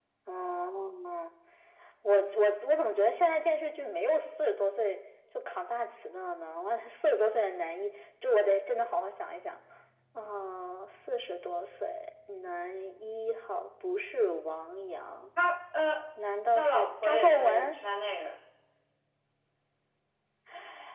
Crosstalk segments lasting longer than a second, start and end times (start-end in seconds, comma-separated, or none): 16.6-17.8